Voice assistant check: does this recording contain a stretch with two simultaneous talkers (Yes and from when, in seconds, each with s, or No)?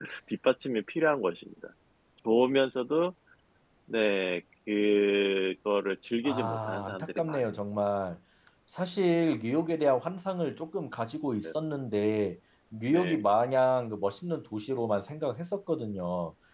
Yes, from 6.2 s